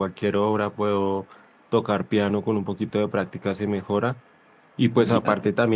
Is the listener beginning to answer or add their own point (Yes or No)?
No